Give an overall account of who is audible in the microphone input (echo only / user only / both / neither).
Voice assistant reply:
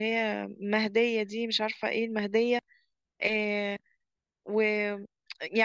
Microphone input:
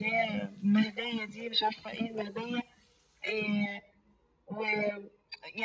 echo only